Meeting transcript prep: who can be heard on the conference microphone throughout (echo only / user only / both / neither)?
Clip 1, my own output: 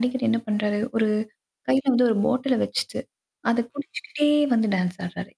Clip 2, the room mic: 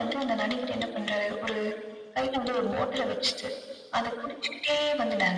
echo only